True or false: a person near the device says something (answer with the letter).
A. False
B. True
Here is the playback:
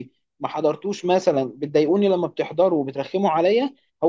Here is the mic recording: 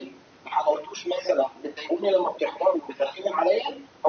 A